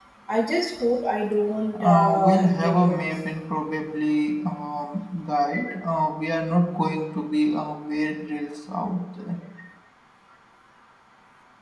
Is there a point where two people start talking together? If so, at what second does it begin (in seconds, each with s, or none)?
1.7 s